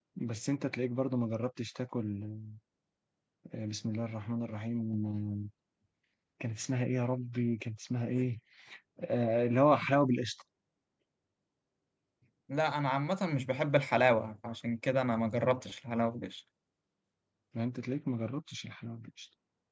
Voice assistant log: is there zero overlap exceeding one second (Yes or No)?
Yes